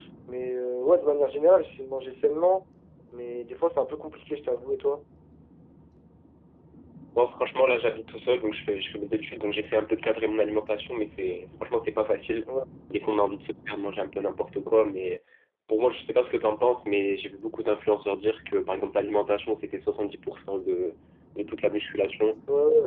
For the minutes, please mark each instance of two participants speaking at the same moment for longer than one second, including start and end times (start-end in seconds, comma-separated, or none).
none